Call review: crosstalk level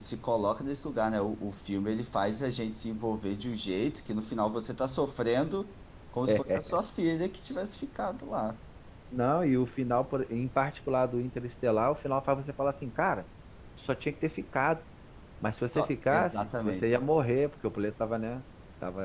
present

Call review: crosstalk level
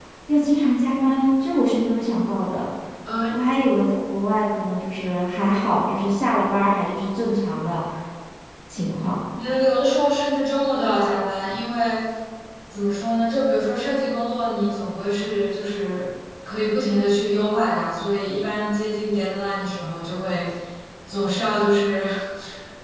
none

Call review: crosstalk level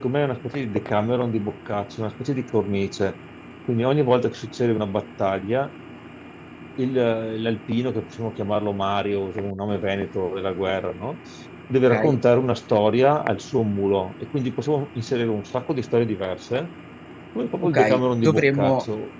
present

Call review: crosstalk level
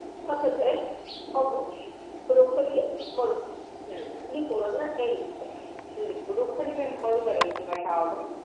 none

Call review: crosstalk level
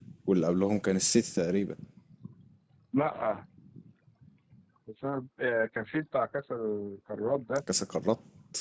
none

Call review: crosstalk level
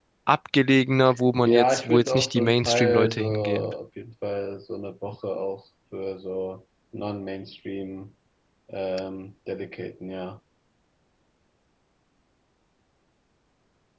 present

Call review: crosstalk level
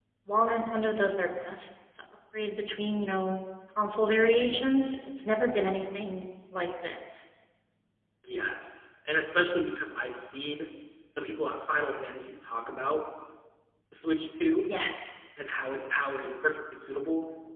none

